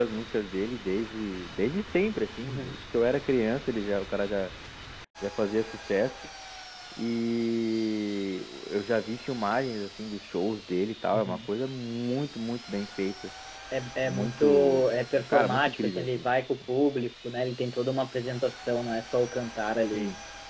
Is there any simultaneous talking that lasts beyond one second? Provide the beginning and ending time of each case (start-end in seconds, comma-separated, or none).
14.0-16.3